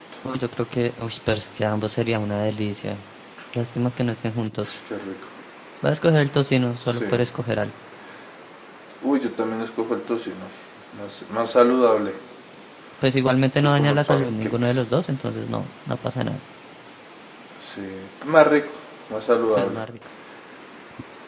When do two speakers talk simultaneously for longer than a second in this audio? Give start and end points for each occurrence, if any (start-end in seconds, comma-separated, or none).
13.6-14.8